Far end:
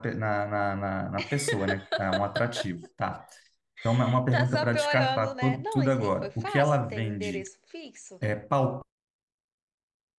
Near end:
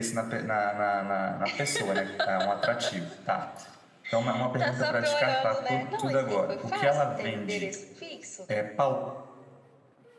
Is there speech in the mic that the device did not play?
No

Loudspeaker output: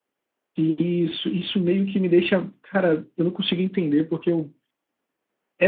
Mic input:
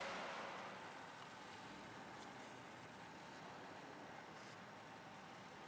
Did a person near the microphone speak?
No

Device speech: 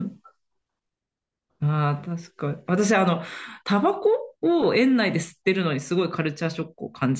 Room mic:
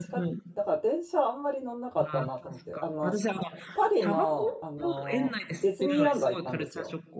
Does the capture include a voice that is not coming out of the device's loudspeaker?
Yes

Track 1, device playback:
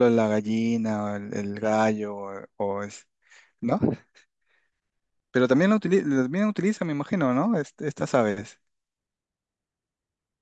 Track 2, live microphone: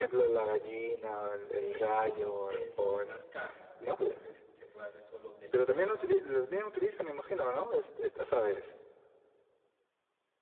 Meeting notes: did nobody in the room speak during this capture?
No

